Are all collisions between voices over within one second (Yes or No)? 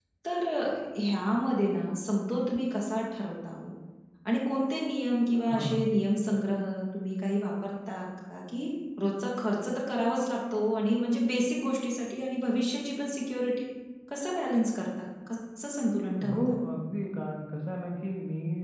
Yes